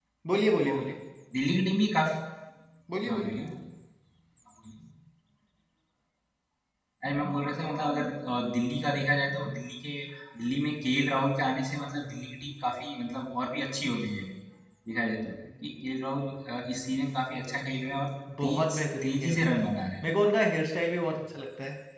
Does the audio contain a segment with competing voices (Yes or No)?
Yes